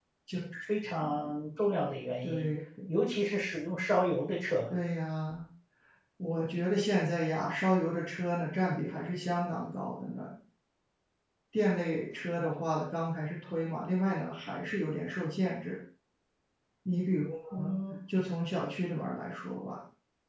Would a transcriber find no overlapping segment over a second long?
Yes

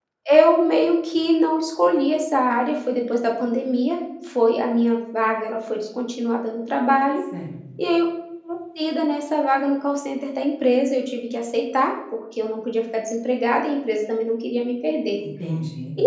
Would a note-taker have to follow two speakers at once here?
No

